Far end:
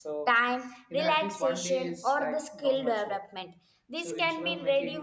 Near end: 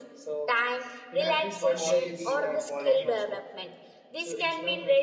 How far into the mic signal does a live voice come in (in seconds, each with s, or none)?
1.7 s